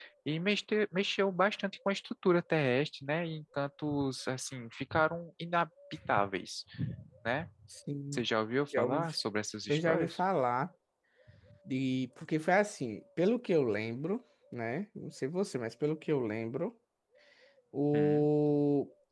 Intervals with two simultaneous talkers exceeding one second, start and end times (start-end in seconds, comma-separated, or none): none